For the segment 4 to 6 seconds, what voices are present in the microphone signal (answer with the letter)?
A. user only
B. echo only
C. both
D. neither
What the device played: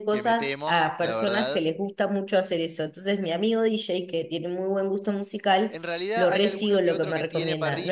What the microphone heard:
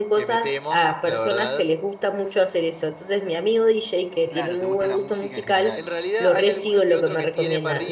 C